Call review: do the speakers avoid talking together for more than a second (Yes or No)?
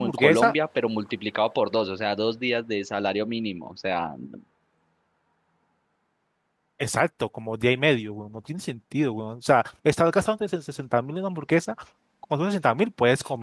Yes